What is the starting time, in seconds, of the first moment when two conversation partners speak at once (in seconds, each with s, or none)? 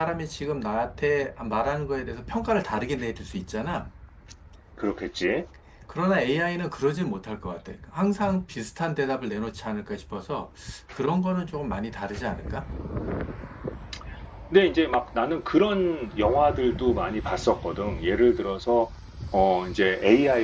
none